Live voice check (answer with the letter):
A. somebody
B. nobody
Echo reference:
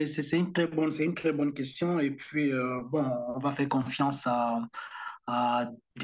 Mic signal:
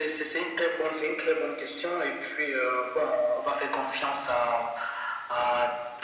B